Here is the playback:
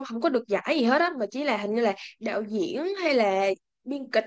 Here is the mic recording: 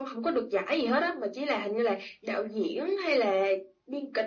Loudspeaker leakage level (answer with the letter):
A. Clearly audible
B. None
A